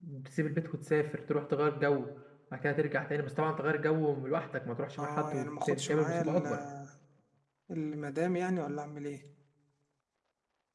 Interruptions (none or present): present